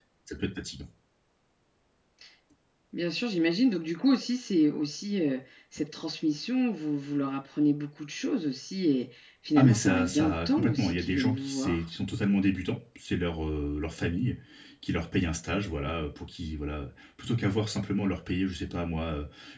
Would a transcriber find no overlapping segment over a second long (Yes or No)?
No